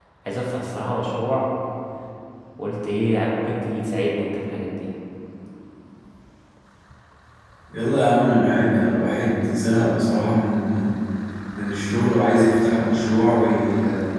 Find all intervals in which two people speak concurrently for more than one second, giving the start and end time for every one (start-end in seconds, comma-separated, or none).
none